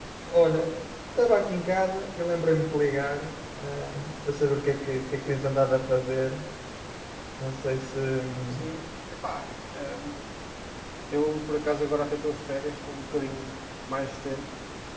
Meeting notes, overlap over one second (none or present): none